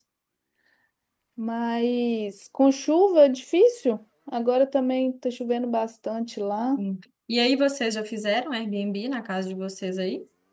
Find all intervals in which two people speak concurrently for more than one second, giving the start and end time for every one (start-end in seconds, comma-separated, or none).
none